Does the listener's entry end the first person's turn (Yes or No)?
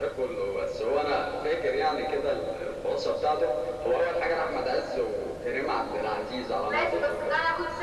Yes